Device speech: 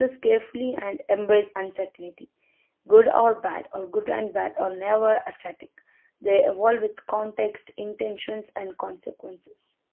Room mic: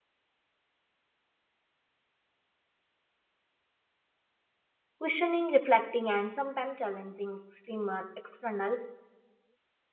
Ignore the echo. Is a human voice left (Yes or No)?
Yes